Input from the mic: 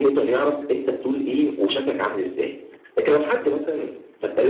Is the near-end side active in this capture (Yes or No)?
No